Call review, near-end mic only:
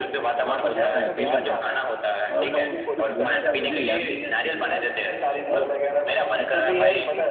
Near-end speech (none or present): present